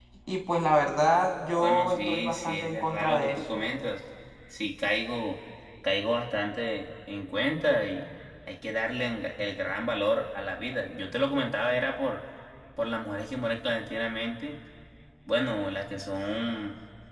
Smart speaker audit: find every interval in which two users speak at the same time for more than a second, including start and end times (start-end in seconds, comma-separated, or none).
1.6-3.4